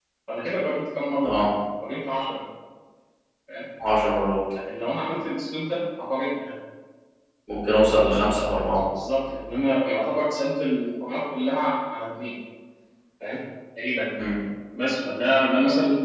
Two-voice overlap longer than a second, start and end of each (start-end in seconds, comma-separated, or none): none